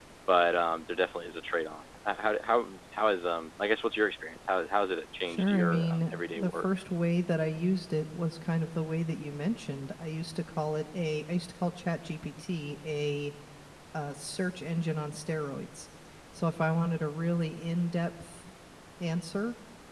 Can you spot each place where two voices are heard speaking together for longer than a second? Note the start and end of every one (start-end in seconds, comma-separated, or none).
5.3-6.6